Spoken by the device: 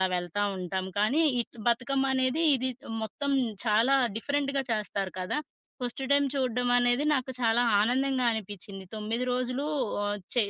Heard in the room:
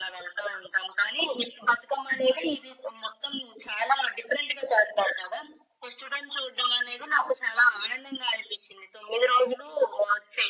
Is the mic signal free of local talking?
Yes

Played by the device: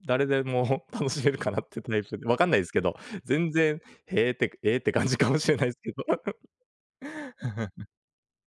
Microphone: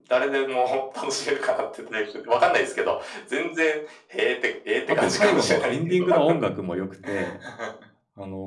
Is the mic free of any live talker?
No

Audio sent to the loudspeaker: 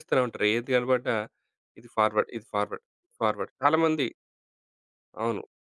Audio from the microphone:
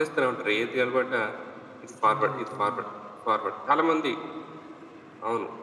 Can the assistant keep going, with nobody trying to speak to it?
No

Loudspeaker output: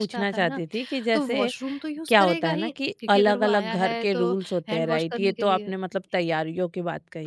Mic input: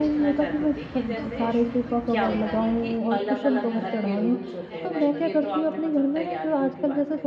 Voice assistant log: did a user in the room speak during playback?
Yes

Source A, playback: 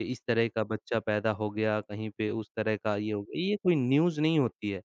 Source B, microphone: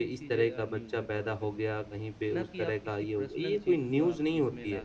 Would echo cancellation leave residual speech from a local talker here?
Yes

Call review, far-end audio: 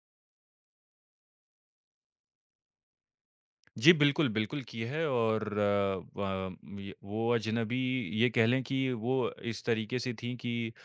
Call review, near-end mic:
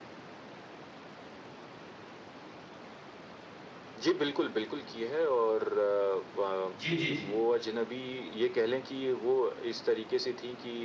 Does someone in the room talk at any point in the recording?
Yes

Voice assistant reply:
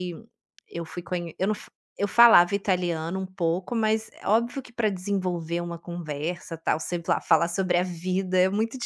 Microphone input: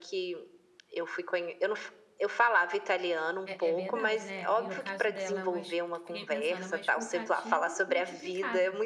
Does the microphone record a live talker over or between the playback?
Yes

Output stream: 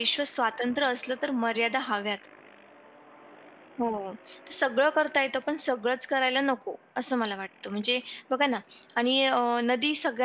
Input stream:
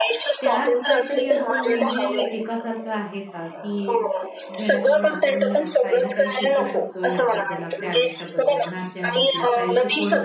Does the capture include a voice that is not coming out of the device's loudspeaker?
Yes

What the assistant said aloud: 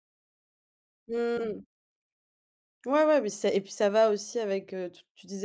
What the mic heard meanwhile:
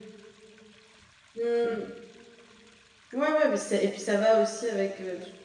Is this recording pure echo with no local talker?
Yes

